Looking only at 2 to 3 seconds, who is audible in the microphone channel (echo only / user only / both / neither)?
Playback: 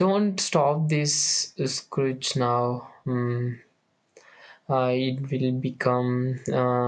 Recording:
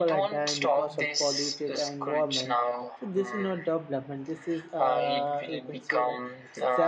both